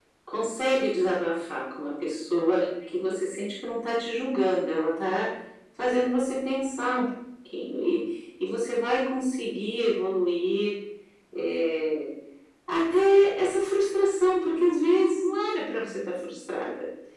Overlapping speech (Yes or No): No